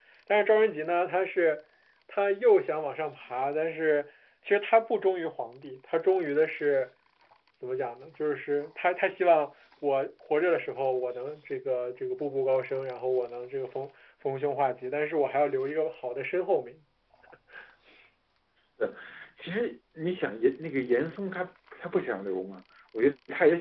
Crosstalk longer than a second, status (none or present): none